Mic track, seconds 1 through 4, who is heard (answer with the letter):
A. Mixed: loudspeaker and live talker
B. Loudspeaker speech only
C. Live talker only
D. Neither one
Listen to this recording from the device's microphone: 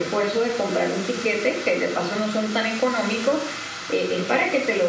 B